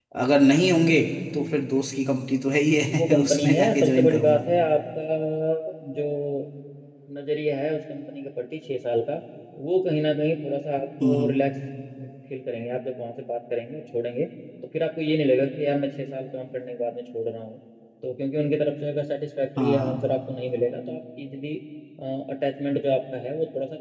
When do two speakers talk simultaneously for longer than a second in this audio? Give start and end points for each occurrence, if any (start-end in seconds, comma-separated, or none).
3.0-4.4